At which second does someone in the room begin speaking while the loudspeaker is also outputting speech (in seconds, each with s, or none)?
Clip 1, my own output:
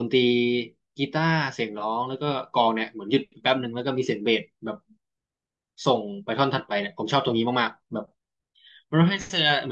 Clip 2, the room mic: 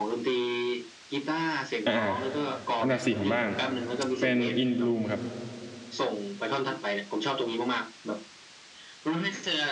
1.8 s